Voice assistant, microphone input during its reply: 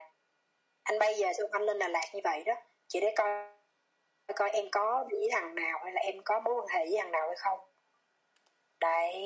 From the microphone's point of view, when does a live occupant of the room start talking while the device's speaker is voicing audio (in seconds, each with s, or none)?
none